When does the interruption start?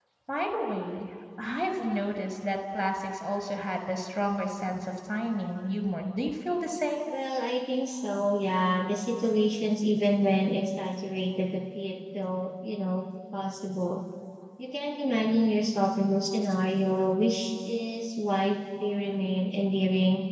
none

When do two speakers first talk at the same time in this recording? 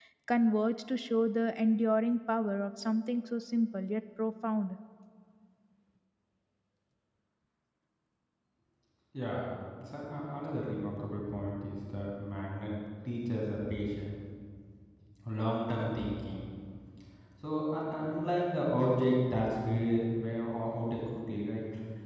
none

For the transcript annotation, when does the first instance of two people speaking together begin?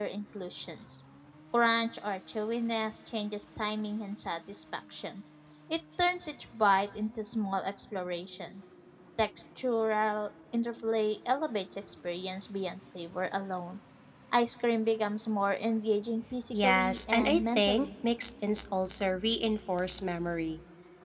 16.5 s

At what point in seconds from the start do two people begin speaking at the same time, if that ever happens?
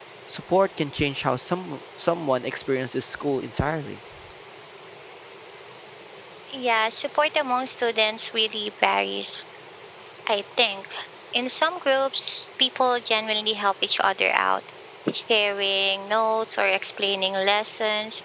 none

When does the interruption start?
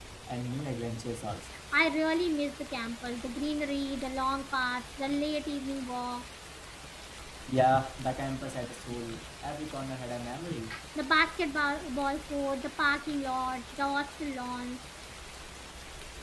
none

